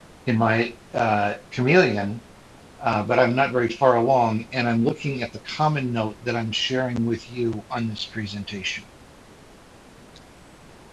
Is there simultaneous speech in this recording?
No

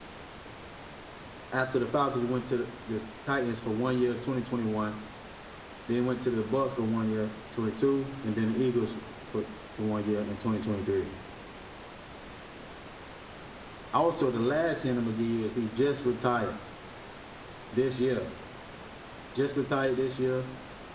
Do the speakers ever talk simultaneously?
No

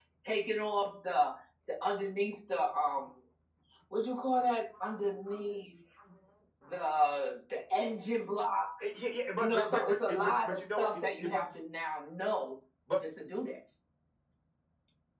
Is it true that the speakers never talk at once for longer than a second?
No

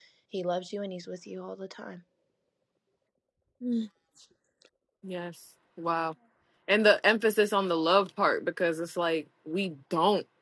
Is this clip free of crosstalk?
Yes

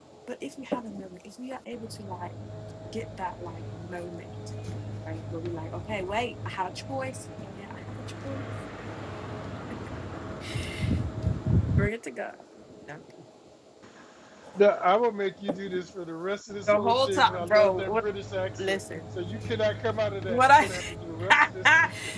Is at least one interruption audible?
Yes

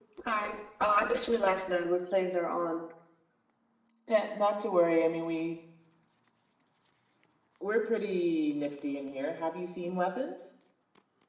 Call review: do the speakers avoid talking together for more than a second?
Yes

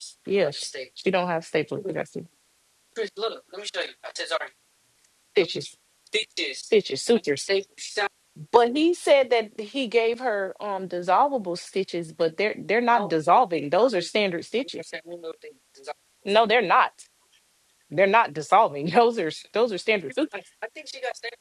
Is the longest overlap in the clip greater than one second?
No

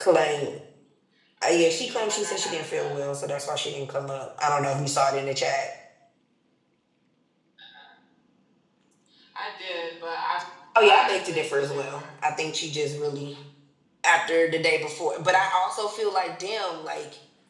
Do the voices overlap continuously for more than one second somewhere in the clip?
Yes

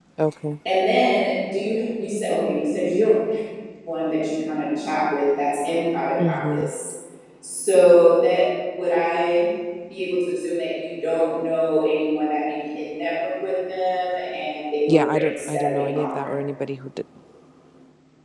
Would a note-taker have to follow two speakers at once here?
Yes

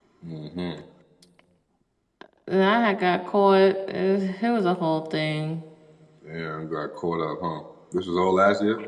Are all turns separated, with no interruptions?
Yes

